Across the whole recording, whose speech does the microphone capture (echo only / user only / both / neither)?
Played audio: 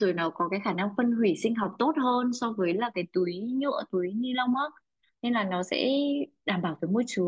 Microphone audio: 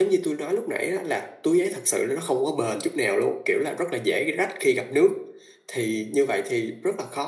user only